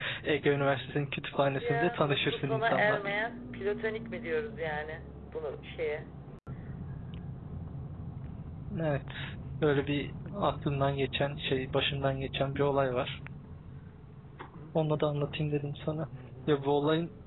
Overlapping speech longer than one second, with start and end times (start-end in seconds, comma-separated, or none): 1.6-3.1